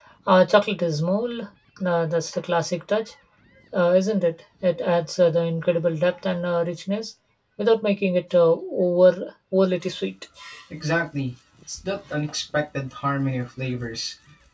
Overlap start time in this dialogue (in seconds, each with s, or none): none